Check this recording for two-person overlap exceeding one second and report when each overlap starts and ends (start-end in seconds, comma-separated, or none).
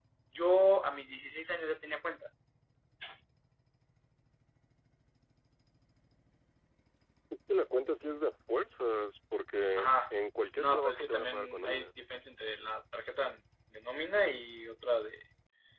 10.6-11.9